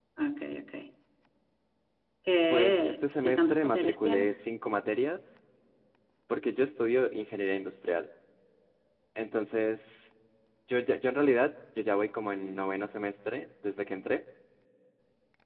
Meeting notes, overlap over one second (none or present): present